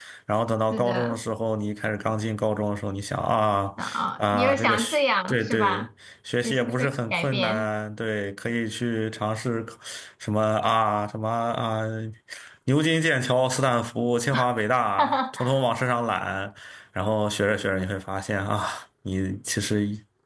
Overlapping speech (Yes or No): Yes